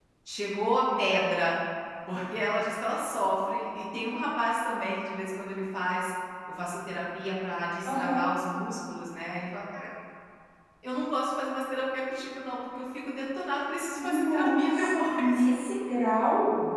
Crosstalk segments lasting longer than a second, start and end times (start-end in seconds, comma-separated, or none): 14.0-15.5